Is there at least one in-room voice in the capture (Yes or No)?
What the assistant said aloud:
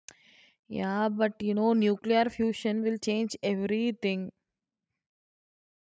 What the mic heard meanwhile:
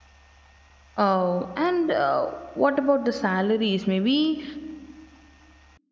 Yes